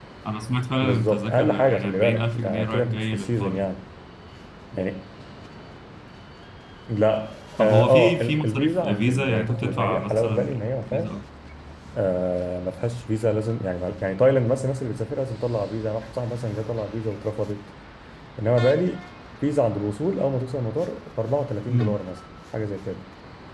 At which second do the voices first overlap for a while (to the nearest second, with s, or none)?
1 s